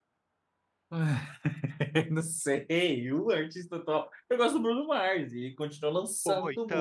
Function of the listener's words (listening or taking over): listening